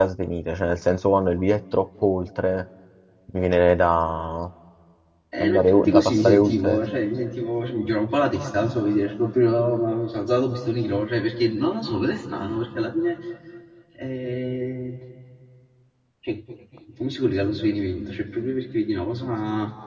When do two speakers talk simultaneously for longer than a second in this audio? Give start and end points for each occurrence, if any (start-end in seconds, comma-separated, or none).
5.4-6.8